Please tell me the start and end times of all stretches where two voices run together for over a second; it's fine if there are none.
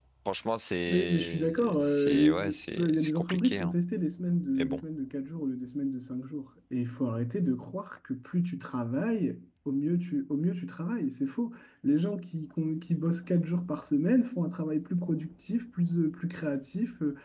0.9-3.7

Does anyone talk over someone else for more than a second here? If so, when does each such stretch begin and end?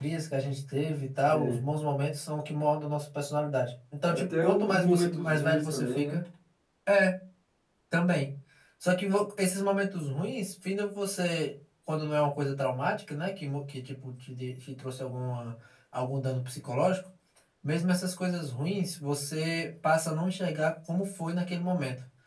4.1-6.2

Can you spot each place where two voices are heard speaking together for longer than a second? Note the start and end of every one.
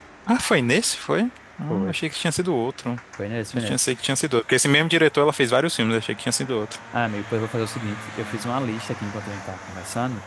none

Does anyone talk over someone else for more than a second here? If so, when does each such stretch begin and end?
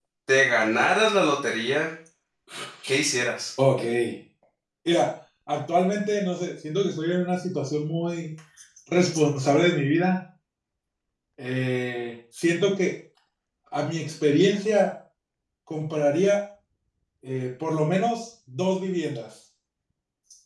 none

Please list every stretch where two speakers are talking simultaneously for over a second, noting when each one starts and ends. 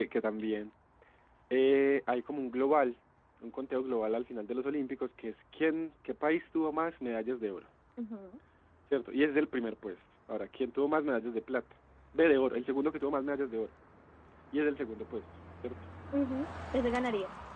none

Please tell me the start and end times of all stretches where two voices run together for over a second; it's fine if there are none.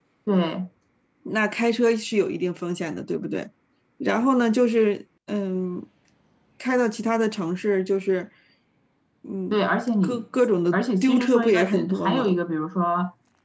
10.7-12.4

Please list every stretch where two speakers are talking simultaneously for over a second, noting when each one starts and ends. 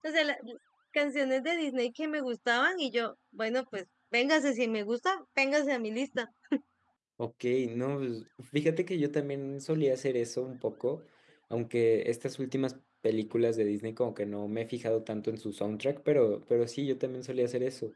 none

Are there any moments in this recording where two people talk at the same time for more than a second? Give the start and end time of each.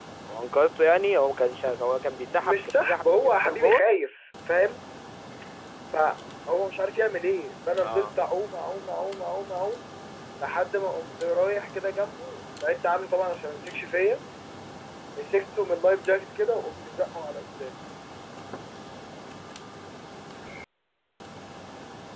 2.4-3.8

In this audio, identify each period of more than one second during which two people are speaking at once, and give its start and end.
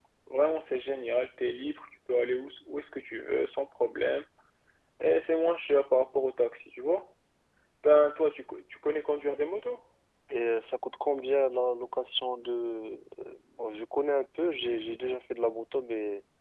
none

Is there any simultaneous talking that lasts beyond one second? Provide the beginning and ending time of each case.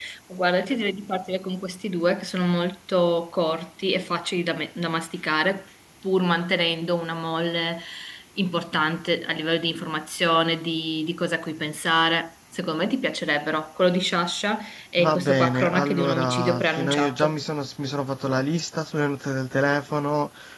15.0-17.4

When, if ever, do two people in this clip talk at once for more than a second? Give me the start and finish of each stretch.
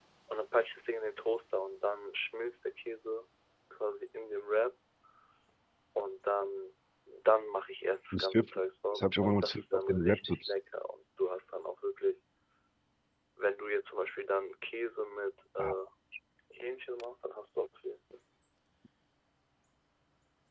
8.9-10.4

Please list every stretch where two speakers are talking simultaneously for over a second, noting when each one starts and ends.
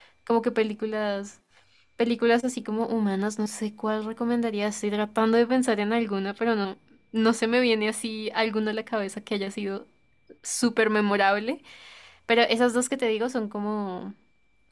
none

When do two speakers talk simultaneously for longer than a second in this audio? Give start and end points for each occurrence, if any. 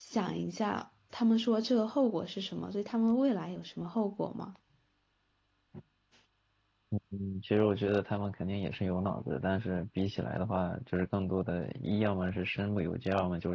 none

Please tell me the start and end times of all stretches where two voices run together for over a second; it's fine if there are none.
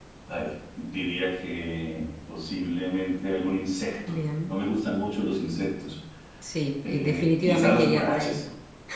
6.8-8.4

